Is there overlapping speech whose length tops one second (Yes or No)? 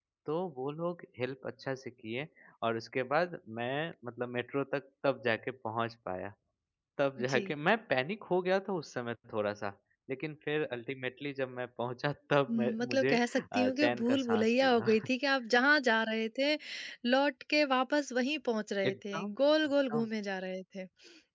Yes